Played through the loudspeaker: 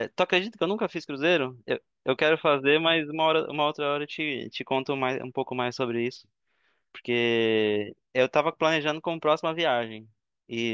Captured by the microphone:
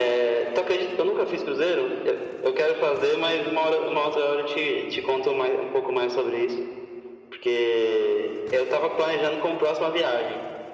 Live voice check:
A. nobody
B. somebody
A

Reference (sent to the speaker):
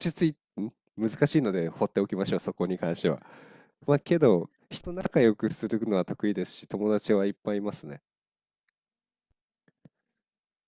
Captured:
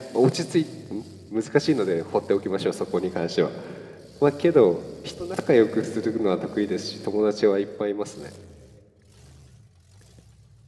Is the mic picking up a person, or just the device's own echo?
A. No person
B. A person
A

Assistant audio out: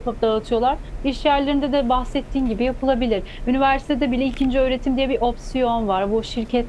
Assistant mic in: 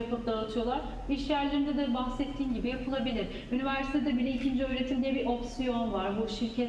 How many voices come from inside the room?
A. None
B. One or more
A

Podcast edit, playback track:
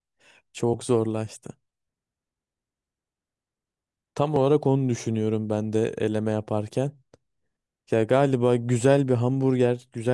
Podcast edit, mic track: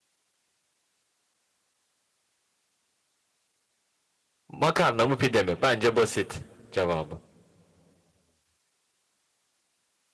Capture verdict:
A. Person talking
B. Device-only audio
A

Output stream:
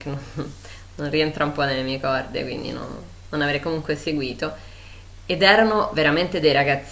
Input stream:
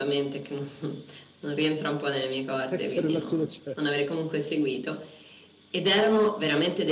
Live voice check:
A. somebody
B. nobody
A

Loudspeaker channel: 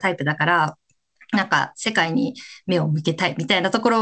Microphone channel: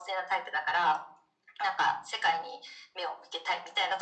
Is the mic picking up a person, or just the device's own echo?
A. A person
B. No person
B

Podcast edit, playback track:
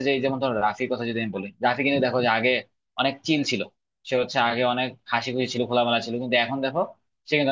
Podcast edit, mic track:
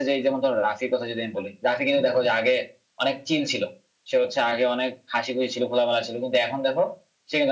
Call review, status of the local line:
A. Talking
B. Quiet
B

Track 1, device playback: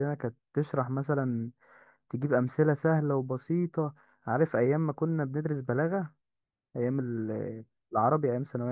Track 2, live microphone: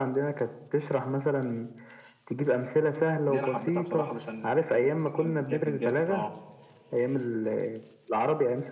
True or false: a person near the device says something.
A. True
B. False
A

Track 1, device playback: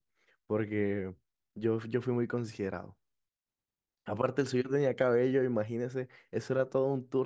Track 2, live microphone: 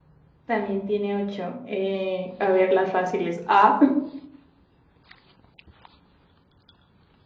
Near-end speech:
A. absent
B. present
B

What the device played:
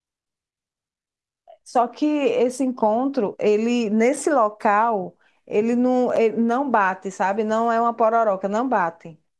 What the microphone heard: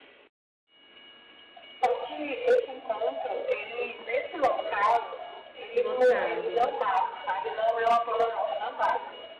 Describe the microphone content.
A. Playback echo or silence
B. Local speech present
B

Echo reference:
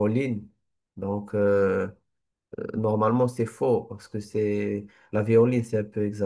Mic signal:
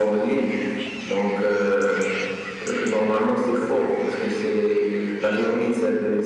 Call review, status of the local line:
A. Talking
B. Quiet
B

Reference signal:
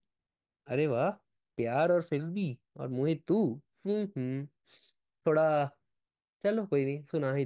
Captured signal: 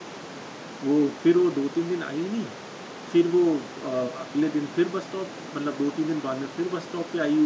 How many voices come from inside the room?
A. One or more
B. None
A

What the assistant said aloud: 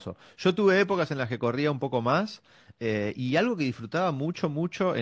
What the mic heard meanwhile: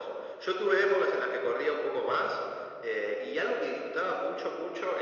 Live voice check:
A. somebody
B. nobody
B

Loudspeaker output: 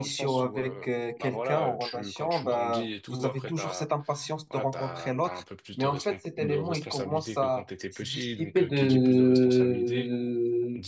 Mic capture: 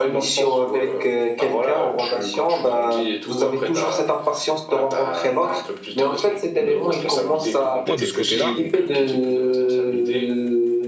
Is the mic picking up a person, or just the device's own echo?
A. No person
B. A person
B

